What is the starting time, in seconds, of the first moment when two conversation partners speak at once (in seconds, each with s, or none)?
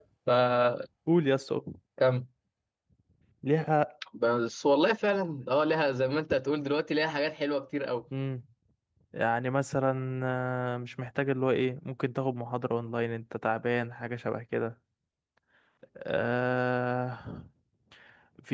none